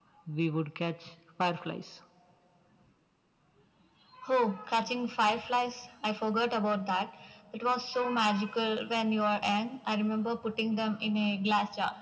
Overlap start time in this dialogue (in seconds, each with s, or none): none